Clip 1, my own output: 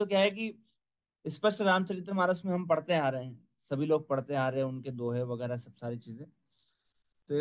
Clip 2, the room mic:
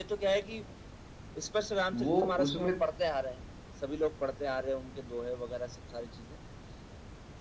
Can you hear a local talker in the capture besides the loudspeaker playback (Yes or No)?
Yes